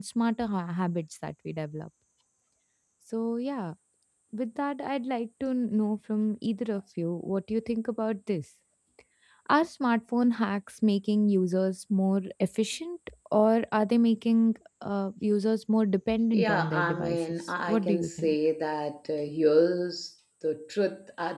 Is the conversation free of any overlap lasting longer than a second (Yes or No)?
No